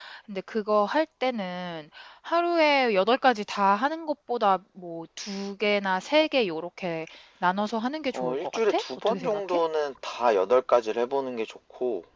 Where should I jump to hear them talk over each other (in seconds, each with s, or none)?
8.1 s